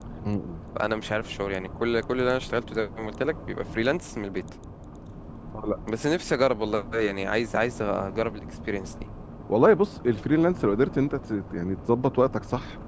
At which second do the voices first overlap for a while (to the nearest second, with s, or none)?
none